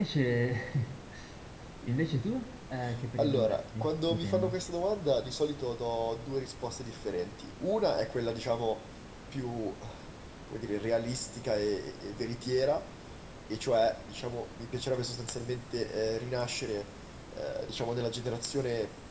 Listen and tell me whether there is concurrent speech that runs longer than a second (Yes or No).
Yes